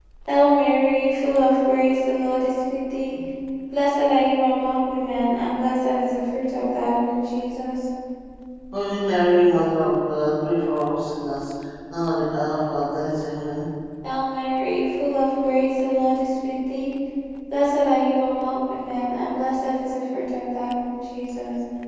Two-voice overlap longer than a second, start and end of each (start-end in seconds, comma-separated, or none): none